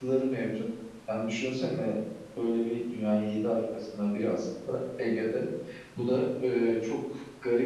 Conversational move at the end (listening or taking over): listening